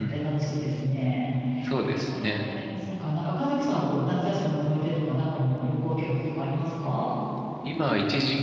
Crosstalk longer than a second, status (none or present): none